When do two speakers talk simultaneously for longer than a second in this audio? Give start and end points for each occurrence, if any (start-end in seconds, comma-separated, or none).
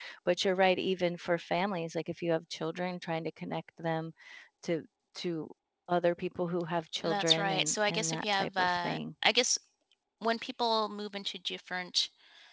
7.0-9.0